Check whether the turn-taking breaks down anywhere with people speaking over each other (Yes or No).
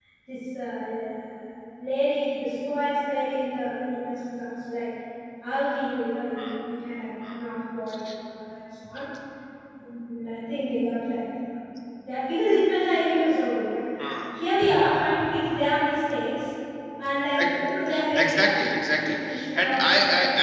Yes